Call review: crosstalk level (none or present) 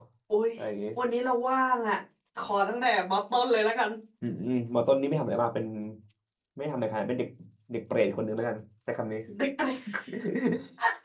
none